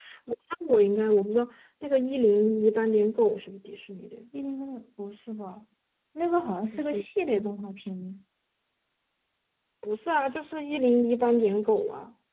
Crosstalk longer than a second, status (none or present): none